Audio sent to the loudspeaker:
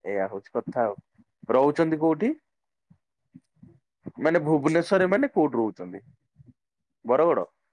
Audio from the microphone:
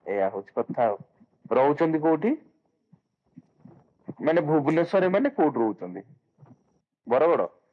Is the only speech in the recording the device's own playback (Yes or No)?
Yes